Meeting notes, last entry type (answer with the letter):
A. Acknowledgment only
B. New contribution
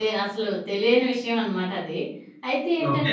A